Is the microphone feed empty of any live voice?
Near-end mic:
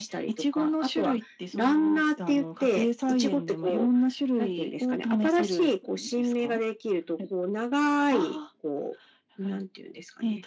Yes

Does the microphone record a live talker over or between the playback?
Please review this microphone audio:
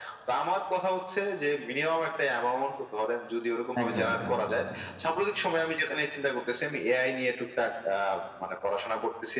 Yes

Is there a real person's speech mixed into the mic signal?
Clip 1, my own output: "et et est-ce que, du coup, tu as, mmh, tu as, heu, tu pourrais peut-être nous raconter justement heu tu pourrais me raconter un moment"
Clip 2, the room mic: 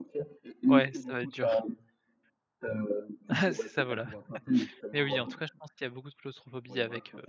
Yes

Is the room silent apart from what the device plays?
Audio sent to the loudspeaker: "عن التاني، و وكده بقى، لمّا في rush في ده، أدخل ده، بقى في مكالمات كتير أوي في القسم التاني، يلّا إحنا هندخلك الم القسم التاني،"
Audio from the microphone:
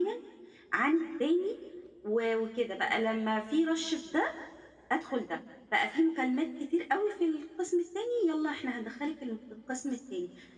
Yes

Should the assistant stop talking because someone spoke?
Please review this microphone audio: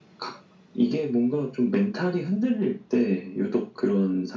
No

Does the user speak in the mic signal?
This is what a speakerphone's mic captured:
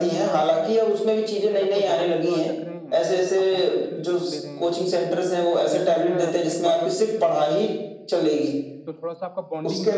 Yes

